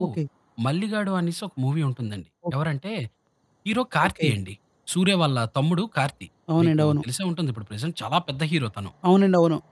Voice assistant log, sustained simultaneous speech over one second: none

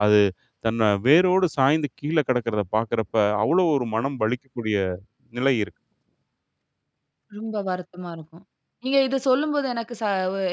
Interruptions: none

